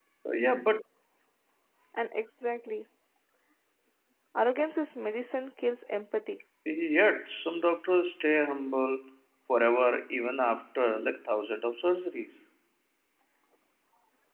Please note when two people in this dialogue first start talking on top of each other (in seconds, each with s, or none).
none